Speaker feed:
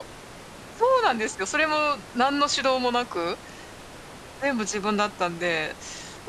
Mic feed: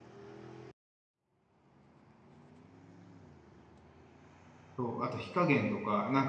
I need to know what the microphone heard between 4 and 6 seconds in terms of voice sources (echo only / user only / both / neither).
user only